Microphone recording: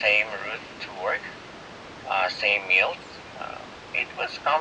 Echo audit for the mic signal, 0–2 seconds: echo only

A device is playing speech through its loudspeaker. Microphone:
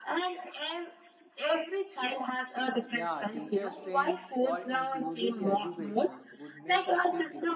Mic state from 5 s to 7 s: both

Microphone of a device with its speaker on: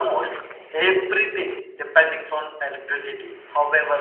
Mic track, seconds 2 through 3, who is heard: echo only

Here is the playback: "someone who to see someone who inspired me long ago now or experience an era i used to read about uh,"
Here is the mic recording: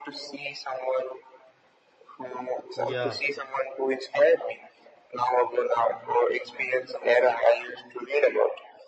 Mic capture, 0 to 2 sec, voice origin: echo only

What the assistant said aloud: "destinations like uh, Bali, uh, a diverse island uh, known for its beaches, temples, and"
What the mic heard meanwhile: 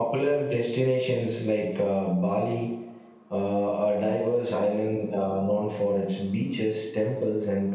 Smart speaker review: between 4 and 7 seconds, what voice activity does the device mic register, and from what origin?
echo only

